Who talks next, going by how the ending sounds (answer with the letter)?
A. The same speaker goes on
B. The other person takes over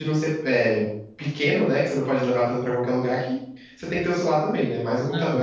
B